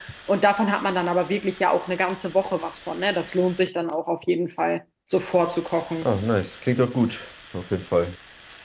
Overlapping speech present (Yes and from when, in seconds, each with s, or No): No